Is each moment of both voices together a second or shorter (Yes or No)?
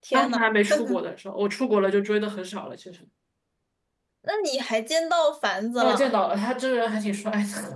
Yes